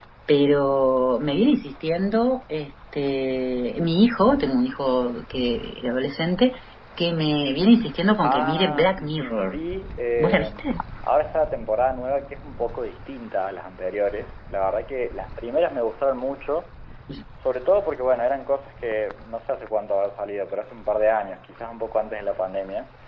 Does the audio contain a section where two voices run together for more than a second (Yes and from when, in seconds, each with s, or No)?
Yes, from 8.3 s